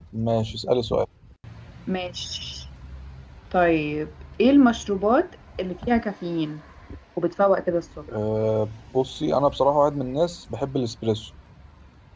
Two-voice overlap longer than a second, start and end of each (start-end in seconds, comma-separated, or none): none